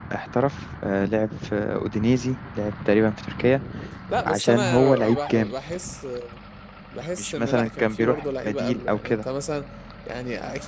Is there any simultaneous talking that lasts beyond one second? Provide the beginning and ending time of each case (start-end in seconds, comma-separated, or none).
4.2-5.5, 7.2-9.2